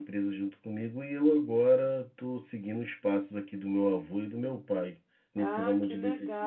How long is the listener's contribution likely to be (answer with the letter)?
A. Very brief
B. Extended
B